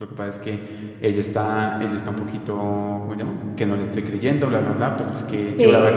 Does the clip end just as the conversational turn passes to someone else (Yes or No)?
No